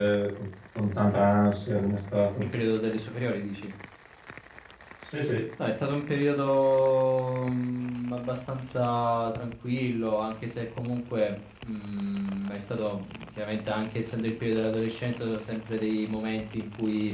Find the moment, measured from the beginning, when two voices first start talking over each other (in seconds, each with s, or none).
none